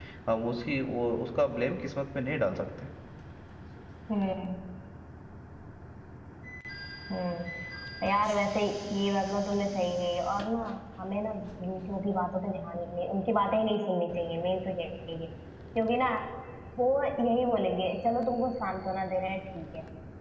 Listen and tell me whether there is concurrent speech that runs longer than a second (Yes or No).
No